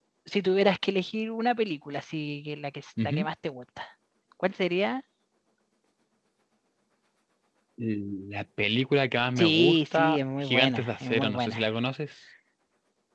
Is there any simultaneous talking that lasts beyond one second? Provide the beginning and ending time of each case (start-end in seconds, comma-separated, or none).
9.4-11.6